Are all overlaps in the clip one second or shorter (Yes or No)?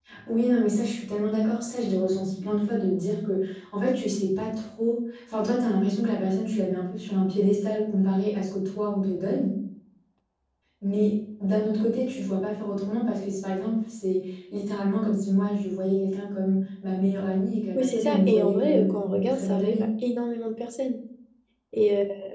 No